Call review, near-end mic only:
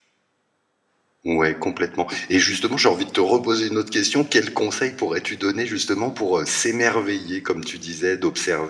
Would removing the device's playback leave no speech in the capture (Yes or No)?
No